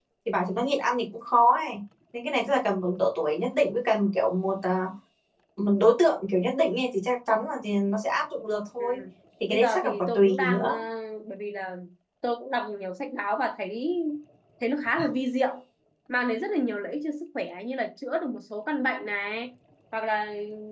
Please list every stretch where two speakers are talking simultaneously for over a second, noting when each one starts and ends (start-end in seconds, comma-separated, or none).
9.5-10.7